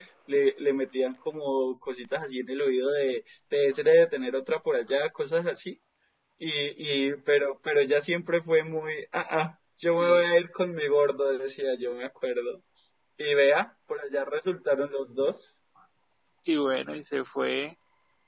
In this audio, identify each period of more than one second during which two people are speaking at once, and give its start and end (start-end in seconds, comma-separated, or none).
none